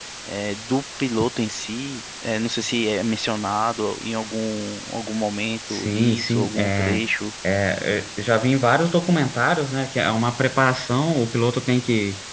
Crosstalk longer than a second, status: present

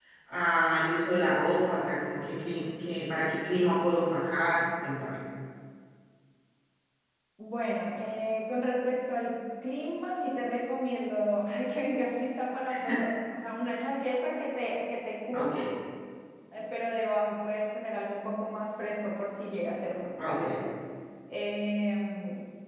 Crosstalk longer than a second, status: none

